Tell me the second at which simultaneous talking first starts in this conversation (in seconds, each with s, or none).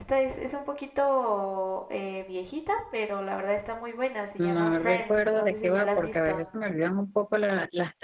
4.4 s